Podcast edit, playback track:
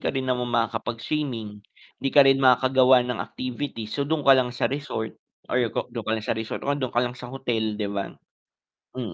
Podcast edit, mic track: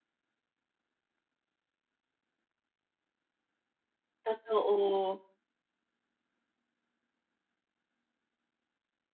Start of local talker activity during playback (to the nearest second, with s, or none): 4 s